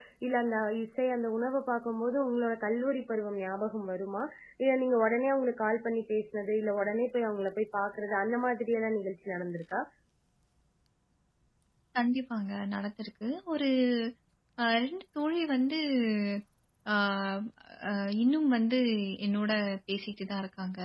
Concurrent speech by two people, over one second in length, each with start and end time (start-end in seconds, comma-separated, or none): none